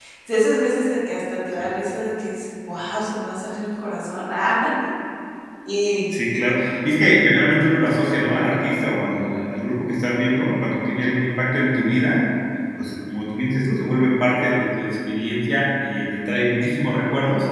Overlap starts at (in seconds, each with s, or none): none